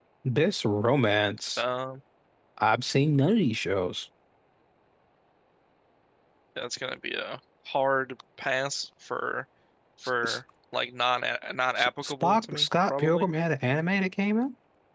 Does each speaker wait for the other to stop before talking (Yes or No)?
No